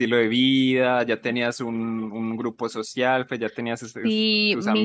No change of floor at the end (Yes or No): No